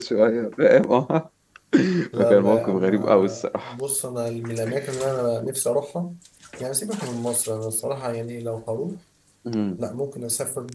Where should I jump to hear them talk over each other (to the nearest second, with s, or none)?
2 s